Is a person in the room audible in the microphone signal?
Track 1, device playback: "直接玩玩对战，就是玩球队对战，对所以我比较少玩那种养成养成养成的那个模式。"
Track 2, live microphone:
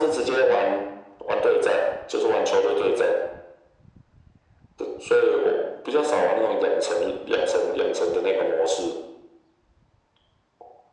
No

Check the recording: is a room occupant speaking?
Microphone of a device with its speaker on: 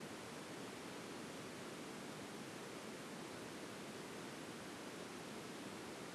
No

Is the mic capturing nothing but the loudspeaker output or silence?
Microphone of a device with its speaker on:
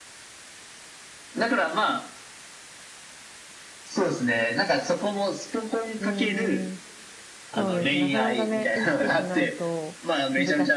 No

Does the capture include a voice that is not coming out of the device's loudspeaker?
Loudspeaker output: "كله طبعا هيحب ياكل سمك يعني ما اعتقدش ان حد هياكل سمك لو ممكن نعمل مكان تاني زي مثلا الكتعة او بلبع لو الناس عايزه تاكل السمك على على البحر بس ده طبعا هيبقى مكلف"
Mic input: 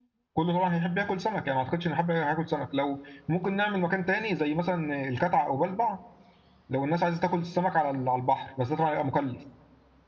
No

